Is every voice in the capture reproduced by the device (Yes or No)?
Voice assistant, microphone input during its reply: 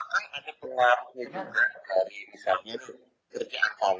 No